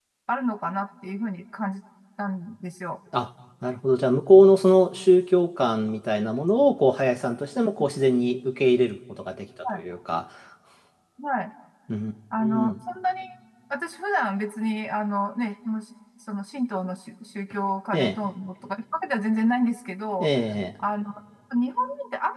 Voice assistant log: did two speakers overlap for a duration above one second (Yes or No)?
No